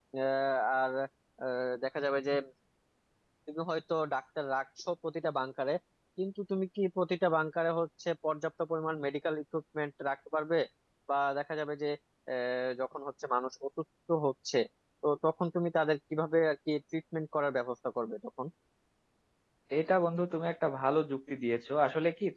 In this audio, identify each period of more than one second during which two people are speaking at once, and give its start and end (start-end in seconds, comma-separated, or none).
none